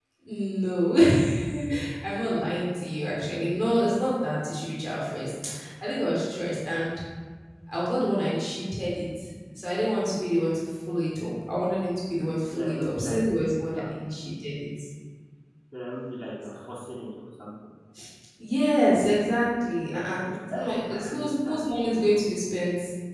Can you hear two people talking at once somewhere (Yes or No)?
Yes